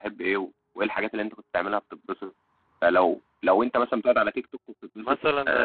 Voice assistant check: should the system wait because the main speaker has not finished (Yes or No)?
No